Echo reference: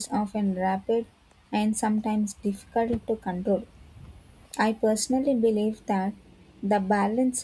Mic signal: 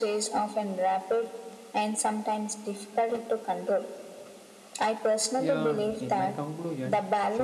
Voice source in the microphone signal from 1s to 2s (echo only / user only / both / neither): echo only